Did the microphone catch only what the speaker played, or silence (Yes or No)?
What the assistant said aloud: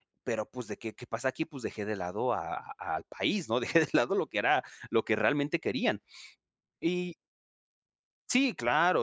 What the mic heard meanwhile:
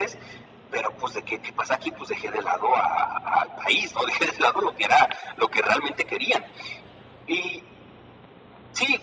Yes